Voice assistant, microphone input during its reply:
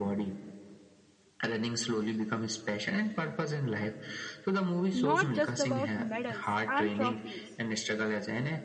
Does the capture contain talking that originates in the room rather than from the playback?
Yes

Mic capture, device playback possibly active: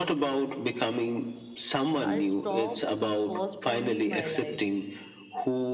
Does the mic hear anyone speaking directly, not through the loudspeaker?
Yes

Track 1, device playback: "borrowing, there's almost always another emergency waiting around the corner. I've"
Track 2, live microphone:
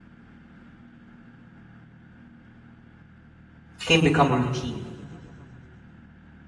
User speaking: Yes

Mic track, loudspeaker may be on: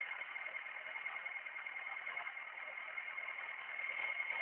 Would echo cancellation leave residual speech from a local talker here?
No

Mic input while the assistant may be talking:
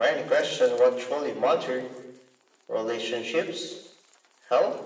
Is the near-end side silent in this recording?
Yes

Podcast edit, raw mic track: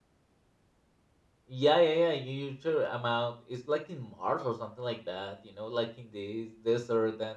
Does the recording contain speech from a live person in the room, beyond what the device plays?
Yes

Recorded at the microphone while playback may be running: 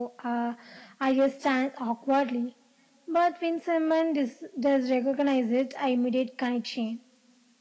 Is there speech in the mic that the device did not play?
No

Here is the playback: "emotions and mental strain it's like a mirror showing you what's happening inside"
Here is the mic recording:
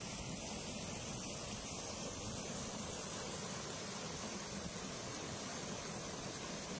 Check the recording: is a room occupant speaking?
No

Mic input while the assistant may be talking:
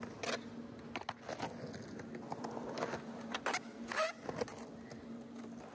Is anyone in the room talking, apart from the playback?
No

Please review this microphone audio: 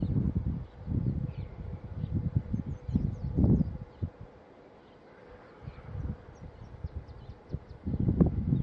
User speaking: No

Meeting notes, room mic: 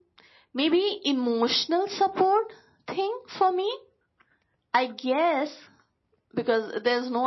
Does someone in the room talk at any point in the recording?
No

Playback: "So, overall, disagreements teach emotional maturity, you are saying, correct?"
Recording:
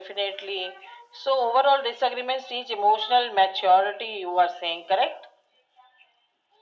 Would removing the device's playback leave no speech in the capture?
Yes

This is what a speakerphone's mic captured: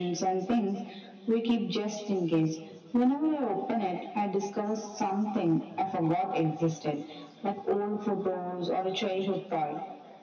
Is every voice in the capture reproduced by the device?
Yes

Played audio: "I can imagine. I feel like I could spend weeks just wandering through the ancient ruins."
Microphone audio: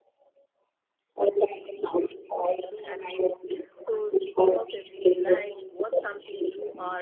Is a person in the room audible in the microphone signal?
Yes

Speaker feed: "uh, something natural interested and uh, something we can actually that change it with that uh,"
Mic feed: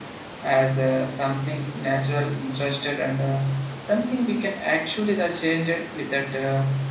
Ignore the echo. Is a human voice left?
No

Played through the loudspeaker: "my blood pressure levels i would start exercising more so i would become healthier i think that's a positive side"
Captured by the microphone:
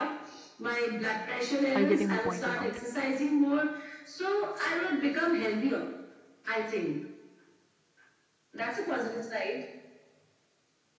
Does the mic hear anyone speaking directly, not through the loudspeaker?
Yes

